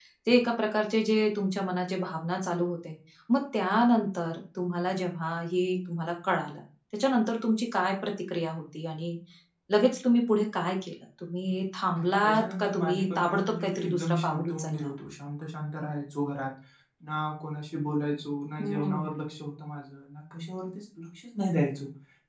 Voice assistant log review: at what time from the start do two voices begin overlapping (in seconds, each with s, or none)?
12.0 s